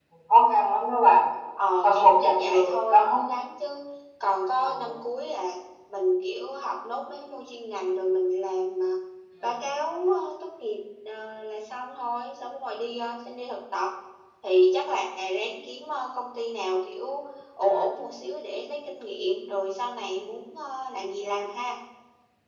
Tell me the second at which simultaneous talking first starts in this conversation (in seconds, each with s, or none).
1.8 s